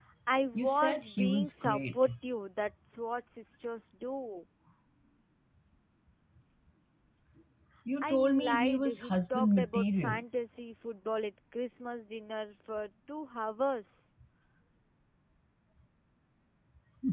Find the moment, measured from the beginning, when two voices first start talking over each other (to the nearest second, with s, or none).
1 s